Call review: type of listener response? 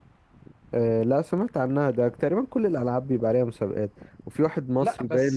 listening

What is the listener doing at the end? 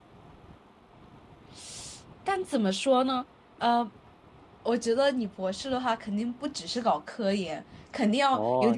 taking over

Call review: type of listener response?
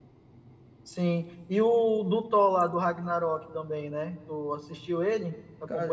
taking over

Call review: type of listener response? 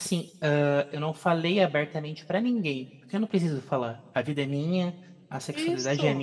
listening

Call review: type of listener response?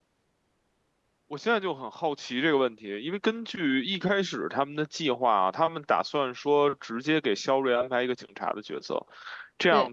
listening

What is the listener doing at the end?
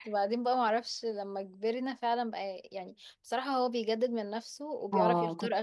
taking over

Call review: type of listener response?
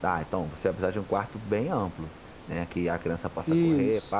listening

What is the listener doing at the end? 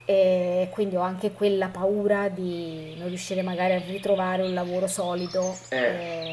taking over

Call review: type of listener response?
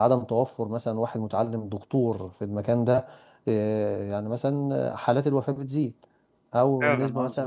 listening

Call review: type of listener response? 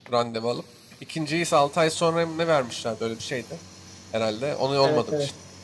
taking over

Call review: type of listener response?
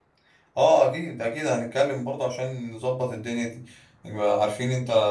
listening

